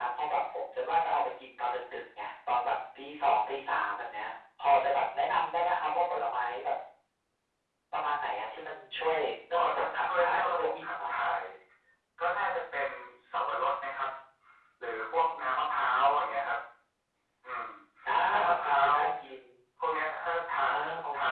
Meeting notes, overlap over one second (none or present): present